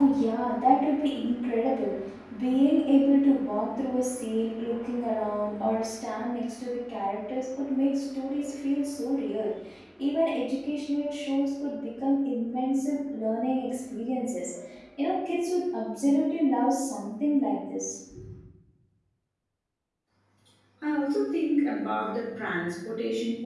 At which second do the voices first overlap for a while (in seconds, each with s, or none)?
none